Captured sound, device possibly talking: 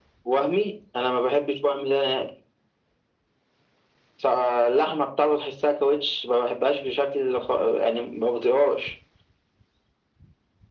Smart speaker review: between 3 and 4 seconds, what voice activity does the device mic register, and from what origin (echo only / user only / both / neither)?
neither